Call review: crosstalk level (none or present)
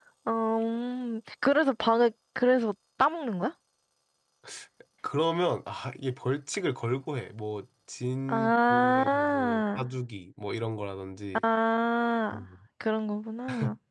present